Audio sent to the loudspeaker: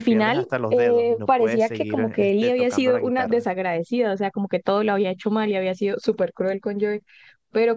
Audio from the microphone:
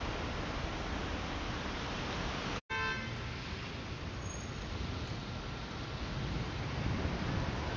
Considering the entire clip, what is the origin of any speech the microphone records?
neither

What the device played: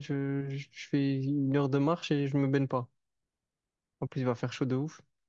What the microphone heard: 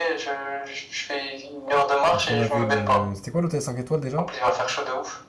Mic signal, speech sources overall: both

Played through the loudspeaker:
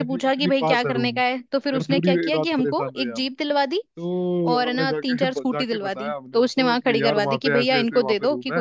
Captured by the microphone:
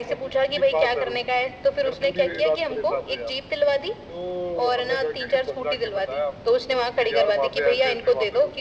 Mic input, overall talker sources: echo only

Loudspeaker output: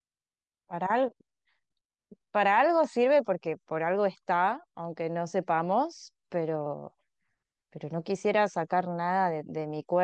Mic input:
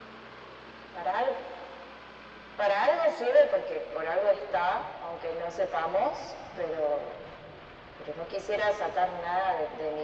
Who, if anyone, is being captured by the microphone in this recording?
echo only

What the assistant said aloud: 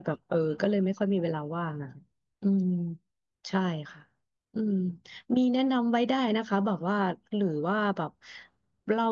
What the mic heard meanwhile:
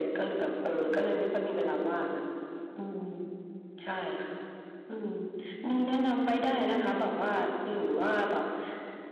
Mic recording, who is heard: echo only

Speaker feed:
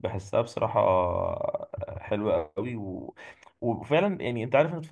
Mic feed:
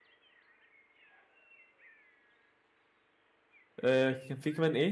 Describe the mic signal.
user only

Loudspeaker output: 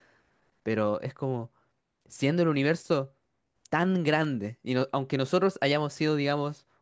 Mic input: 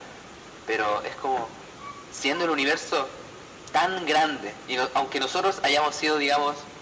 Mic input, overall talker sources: echo only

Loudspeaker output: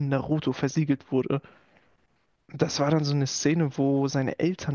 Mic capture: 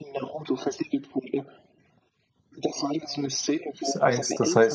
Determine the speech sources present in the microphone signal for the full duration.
both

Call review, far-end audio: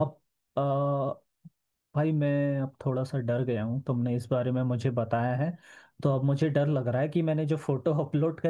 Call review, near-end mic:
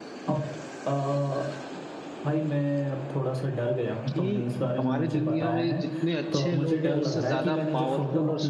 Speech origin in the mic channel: both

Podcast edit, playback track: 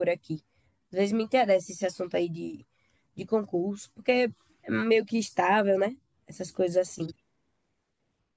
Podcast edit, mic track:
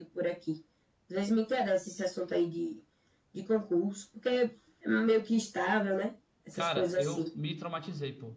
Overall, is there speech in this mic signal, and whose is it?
both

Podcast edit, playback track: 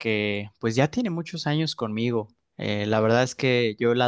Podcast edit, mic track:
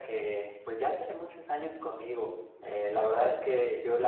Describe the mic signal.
echo only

